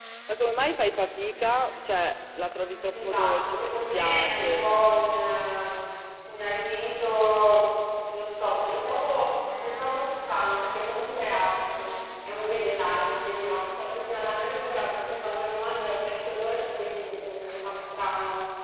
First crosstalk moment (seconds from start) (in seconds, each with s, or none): 2.9 s